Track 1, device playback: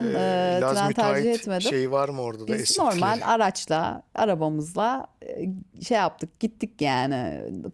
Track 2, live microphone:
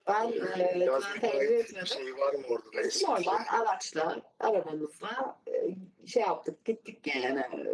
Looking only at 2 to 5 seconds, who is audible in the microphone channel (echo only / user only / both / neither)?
echo only